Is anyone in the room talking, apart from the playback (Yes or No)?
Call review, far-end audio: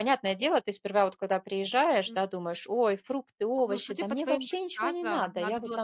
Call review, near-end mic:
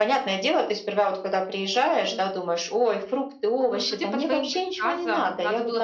No